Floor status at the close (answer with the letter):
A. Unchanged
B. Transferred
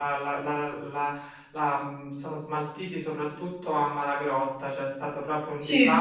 A